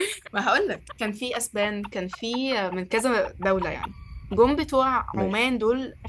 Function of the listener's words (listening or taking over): listening